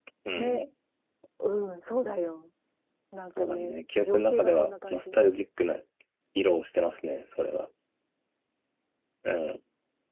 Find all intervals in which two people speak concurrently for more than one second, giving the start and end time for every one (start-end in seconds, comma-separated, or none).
3.4-5.0